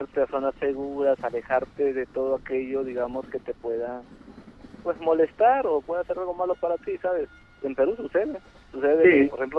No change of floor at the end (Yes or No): Yes